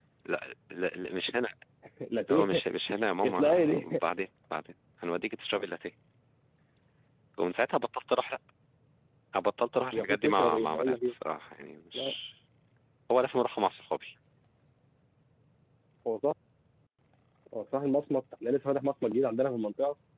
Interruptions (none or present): present